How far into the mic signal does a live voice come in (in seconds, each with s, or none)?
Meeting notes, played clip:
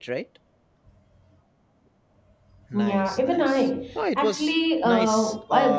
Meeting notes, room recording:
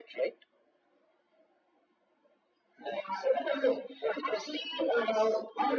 none